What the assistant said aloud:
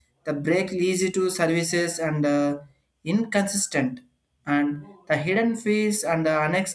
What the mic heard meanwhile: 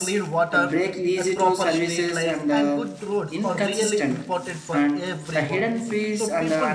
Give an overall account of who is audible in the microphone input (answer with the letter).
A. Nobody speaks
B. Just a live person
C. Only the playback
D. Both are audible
D